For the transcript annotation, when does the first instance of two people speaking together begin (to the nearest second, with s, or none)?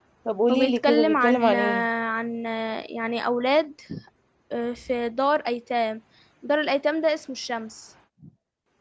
1 s